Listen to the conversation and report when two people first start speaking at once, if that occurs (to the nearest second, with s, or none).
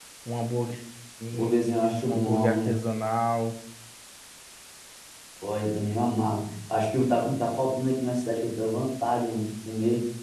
1 s